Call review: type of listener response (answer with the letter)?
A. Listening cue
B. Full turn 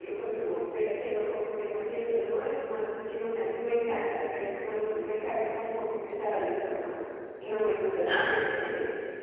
A